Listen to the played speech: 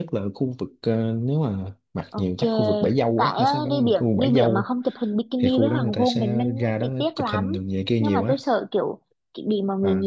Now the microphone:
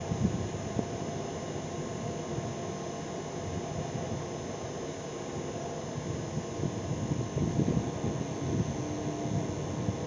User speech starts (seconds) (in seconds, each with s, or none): none